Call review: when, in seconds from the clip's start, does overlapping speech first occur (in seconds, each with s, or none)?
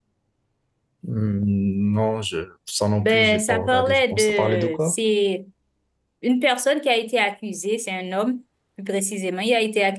3.0 s